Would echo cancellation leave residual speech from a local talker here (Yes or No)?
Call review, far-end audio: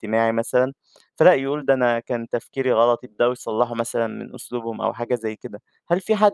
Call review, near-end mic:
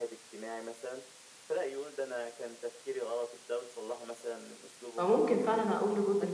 Yes